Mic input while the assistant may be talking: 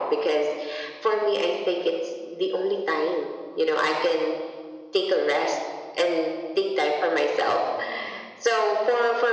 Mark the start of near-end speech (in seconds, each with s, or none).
none